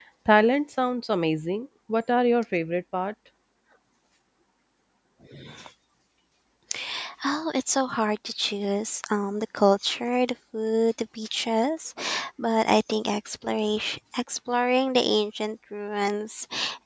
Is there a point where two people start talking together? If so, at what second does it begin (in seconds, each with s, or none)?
none